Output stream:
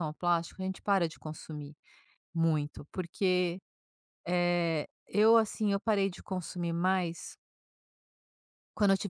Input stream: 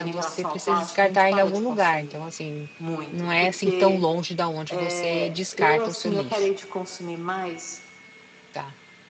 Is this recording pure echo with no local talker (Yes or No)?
No